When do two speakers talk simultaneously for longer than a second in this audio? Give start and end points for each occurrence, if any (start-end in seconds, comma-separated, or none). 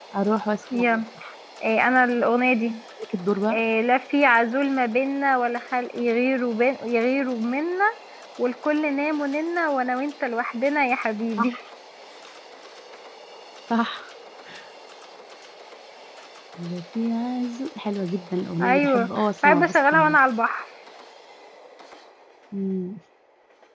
18.6-20.2